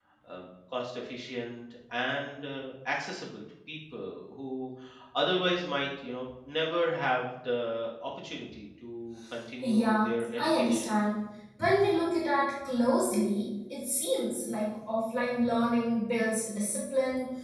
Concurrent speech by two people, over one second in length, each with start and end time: 9.6-10.9

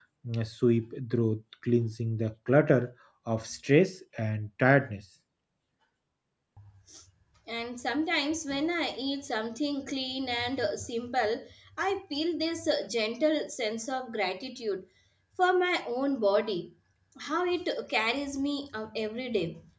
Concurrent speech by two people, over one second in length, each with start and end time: none

